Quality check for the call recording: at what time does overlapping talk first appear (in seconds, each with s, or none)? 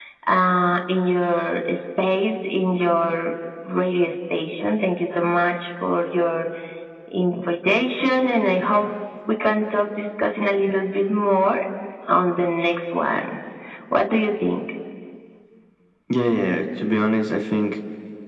none